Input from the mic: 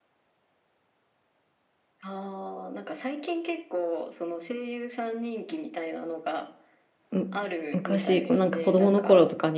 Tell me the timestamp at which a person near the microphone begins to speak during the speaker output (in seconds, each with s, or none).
7.1 s